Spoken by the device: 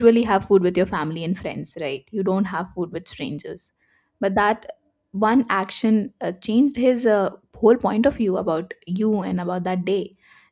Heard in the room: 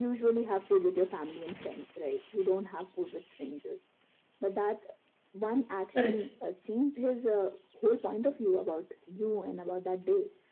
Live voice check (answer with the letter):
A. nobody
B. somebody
B